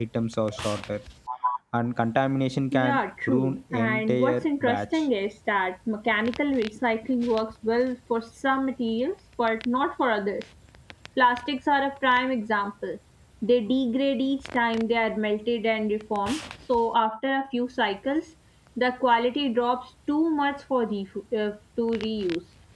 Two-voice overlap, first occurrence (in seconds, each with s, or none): 2.7 s